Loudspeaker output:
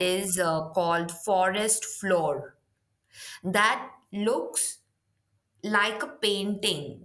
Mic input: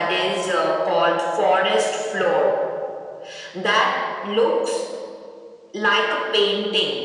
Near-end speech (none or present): none